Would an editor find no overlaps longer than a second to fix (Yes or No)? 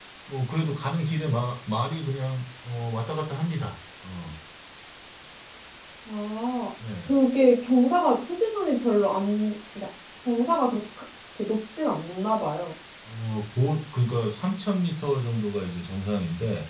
Yes